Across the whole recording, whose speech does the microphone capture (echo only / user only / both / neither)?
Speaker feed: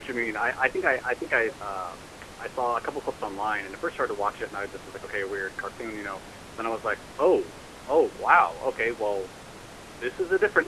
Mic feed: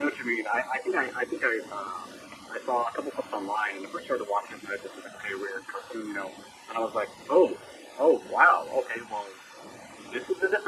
echo only